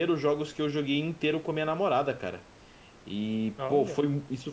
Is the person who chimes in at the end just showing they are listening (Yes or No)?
Yes